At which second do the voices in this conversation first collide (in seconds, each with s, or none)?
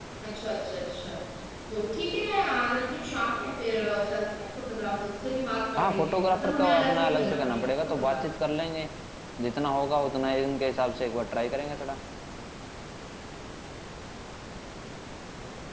5.8 s